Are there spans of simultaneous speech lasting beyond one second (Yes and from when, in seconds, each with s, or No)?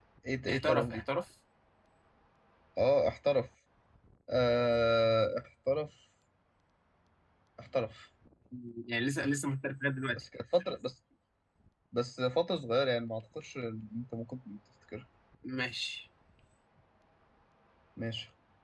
No